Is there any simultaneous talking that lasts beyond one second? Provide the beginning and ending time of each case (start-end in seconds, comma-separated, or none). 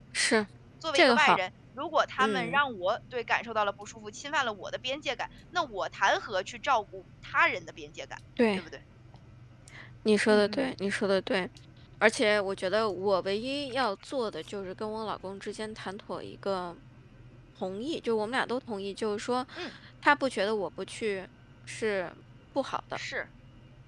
none